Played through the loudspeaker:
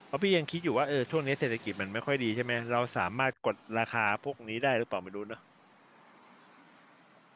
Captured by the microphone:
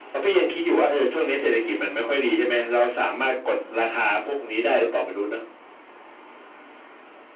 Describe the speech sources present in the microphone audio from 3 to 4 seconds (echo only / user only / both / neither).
echo only